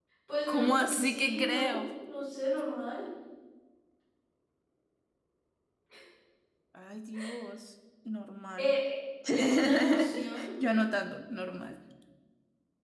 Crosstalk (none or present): present